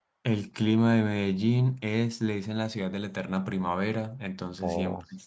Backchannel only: Yes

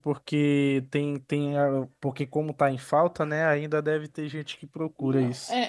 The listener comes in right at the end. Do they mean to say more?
Yes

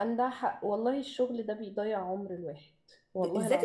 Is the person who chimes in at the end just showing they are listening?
No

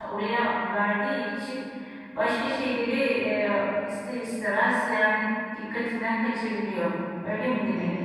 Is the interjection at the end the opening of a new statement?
Yes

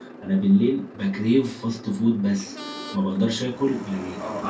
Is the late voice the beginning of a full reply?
Yes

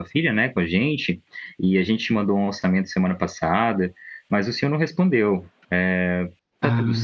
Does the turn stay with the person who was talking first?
Yes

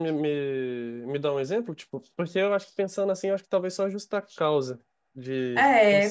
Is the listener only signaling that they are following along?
No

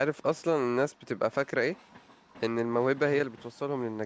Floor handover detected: No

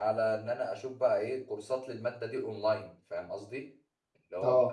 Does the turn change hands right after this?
No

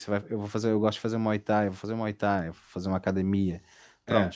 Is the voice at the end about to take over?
No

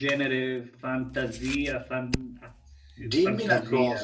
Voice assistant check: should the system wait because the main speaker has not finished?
No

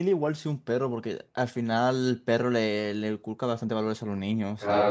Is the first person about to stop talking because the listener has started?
Yes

